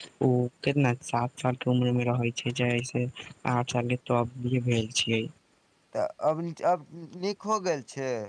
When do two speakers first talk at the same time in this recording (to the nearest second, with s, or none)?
none